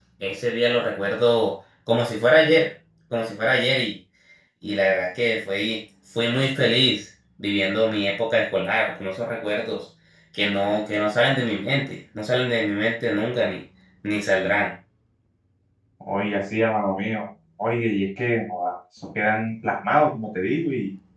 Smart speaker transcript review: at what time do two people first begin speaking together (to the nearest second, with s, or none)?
none